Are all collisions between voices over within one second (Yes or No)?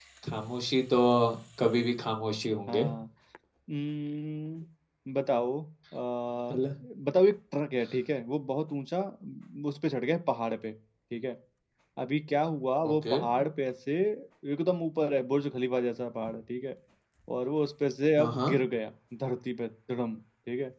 Yes